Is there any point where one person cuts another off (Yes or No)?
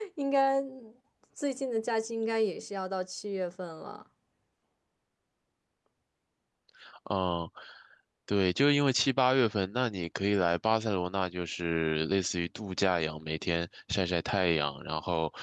No